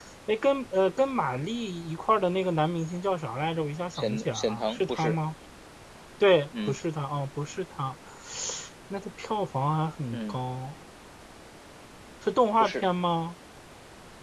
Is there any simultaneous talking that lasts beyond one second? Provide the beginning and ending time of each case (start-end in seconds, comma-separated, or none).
4.0-5.2